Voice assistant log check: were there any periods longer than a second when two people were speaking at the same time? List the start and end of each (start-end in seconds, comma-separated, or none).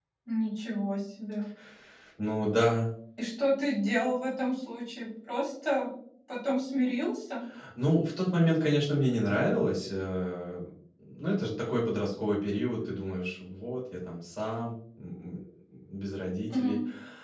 none